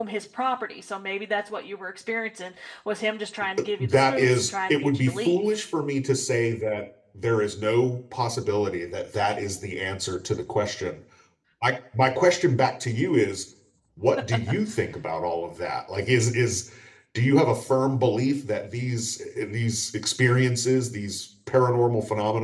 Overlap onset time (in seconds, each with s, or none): 3.6 s